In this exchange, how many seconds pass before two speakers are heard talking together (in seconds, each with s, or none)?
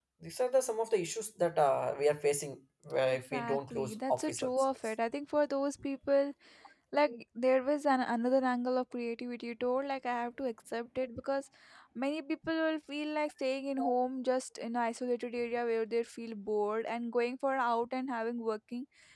3.1 s